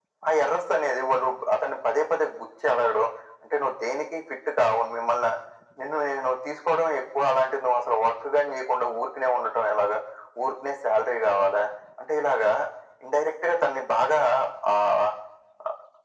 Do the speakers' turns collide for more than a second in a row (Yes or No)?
No